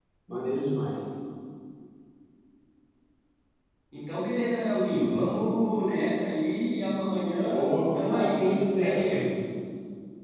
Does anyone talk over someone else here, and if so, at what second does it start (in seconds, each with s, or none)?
7.5 s